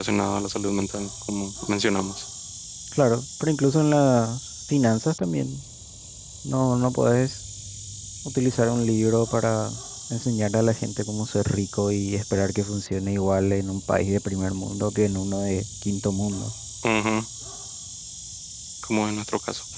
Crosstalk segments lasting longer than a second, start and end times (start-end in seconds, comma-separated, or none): none